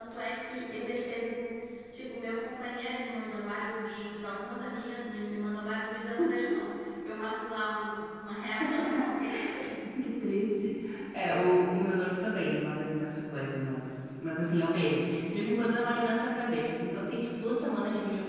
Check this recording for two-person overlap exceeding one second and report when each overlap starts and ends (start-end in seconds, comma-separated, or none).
none